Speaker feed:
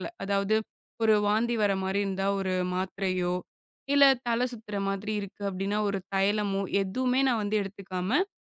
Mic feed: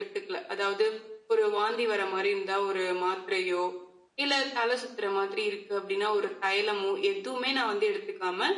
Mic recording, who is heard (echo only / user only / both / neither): echo only